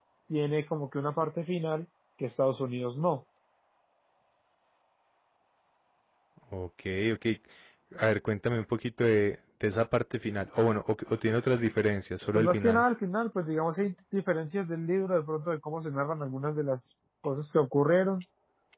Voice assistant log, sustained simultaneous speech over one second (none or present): none